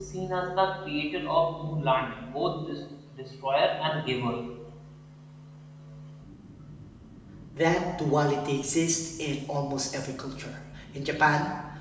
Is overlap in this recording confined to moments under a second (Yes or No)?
Yes